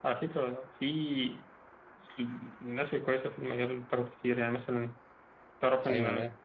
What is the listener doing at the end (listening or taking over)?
listening